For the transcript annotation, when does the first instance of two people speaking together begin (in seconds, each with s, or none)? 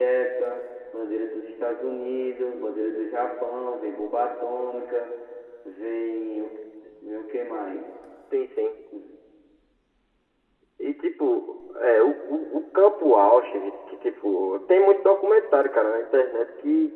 none